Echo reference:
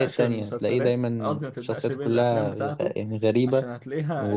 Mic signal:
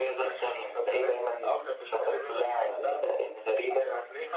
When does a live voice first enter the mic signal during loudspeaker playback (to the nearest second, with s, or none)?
none